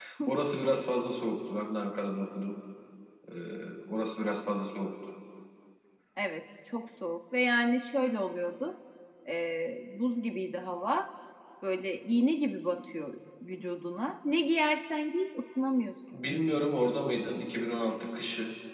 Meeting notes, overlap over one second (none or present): none